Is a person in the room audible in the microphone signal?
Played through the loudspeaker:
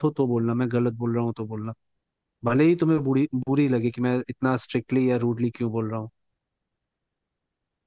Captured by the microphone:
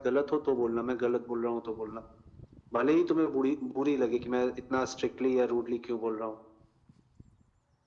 No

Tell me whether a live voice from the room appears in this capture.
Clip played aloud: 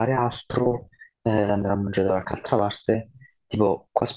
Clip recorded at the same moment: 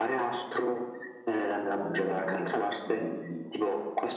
Yes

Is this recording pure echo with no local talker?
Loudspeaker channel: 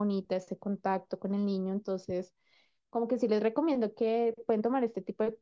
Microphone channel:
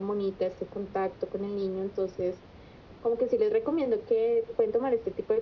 Yes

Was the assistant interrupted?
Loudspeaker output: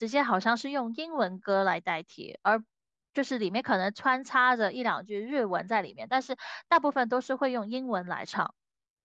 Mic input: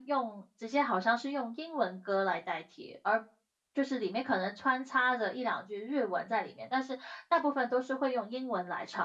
No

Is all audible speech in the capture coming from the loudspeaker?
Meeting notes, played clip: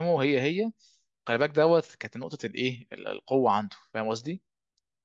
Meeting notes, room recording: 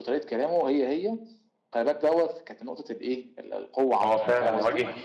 No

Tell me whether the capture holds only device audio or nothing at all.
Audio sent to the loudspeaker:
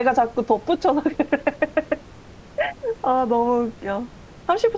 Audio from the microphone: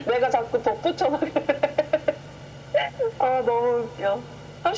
Yes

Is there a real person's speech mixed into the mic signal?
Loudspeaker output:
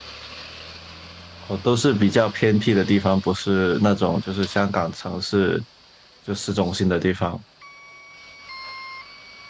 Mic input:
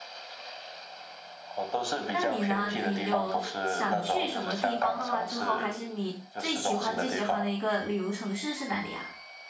Yes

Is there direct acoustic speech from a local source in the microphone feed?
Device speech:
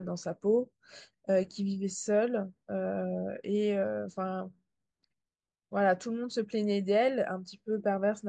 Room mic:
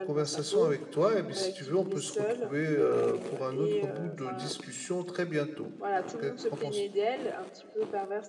Yes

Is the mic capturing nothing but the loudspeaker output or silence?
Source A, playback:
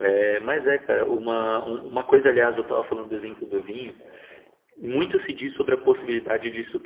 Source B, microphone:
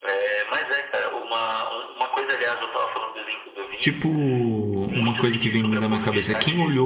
No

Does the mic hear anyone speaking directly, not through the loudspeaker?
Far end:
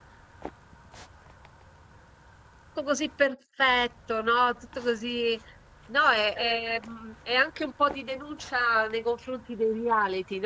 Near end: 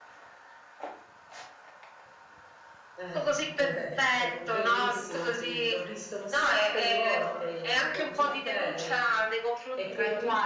Yes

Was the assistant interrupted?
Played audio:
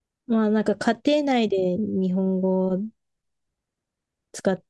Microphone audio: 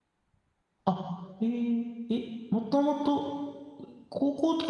Yes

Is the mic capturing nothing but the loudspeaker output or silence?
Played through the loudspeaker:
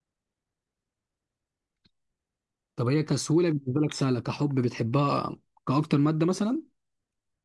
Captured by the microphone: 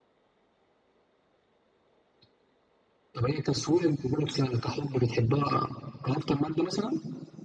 Yes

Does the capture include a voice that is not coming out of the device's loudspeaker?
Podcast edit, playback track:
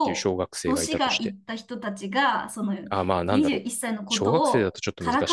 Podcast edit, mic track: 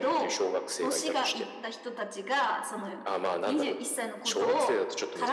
No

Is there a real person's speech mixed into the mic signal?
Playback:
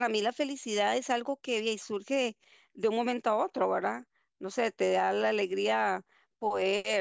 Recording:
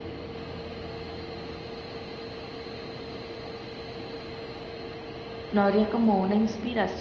Yes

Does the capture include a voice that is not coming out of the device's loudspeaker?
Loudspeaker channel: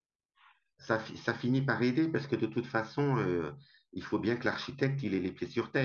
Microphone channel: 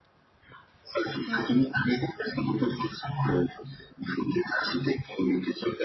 Yes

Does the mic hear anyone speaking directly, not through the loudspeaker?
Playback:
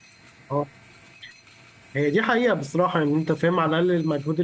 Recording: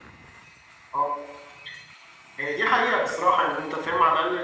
No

